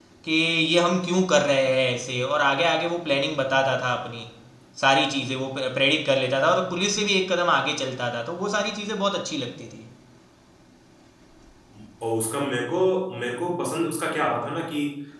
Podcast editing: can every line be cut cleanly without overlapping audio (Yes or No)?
Yes